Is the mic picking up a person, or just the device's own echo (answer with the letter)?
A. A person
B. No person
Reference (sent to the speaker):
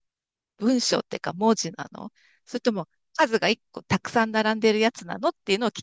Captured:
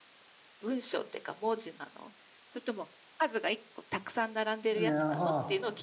A